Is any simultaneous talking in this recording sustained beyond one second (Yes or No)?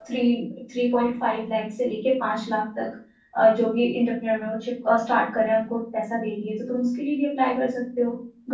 No